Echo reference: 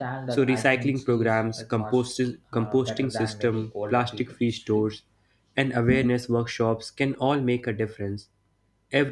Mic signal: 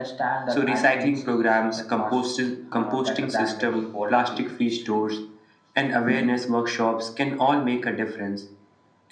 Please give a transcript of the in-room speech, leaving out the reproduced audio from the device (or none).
none